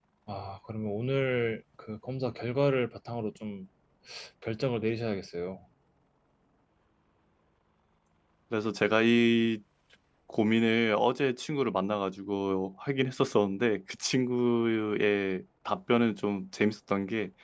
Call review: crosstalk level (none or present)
none